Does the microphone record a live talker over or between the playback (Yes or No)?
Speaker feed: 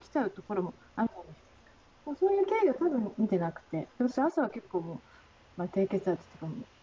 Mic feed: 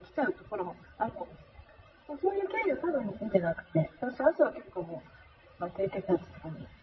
No